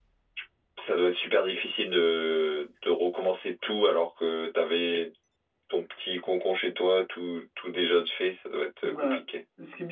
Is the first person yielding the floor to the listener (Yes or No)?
Yes